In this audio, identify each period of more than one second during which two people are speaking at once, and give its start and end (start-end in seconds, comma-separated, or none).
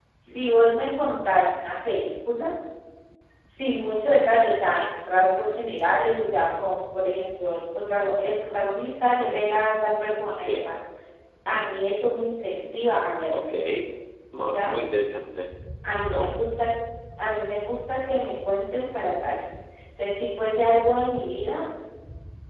none